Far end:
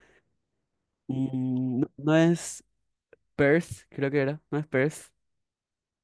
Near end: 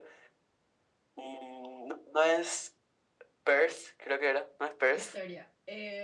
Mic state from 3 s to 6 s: both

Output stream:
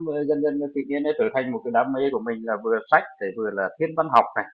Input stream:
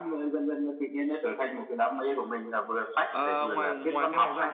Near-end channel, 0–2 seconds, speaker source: echo only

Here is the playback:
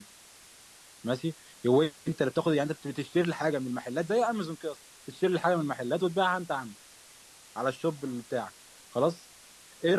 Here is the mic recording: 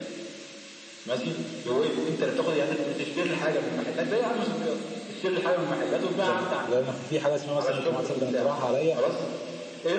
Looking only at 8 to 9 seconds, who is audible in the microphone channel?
both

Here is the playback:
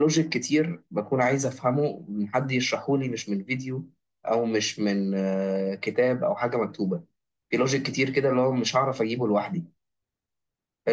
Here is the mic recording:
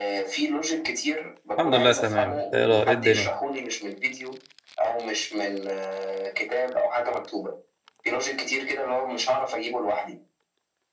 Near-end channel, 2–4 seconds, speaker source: both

